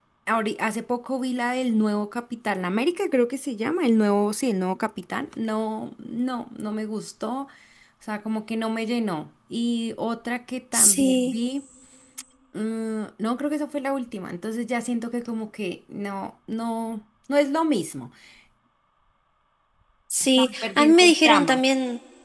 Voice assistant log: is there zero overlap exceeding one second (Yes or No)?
No